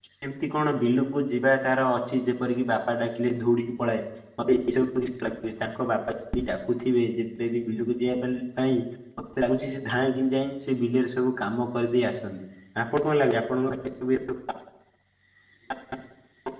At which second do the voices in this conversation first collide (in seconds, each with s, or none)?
none